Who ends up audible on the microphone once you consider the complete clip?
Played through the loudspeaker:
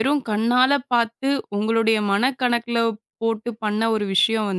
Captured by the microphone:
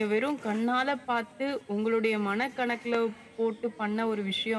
echo only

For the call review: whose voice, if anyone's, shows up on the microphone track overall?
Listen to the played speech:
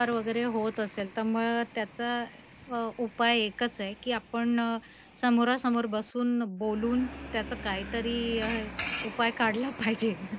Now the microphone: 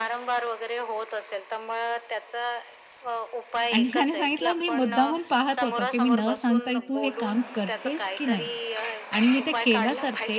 both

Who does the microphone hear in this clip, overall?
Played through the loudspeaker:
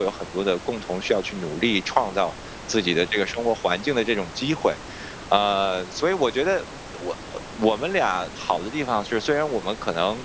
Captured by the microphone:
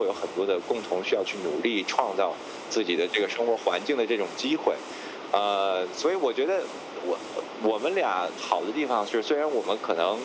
echo only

